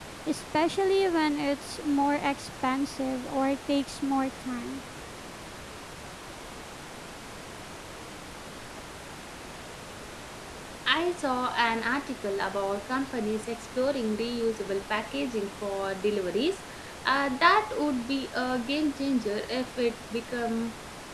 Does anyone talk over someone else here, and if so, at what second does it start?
none

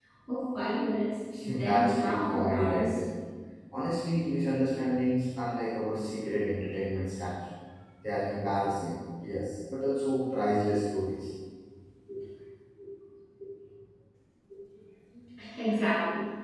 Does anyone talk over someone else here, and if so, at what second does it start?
1.5 s

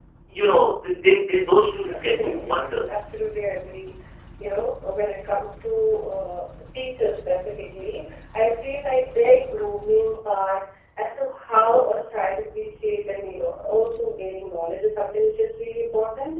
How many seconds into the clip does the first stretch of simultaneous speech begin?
1.9 s

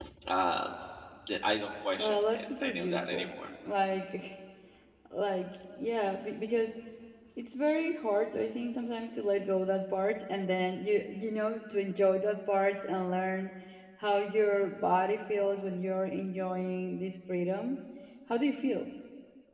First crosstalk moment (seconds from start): 2.0 s

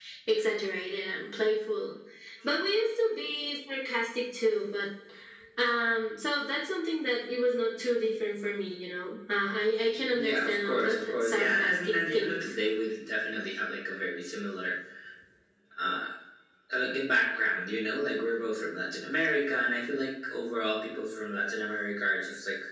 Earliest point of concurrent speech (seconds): 10.1 s

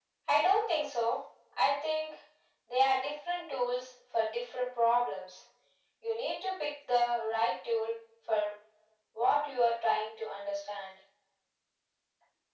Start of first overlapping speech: none

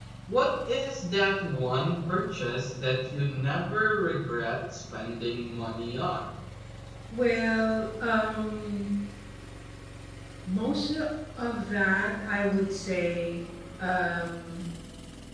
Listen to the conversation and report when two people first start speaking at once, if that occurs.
none

